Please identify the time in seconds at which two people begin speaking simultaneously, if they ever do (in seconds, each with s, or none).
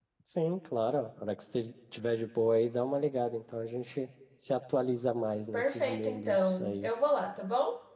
5.5 s